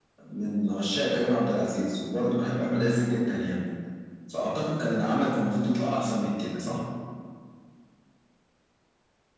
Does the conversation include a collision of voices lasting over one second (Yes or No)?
No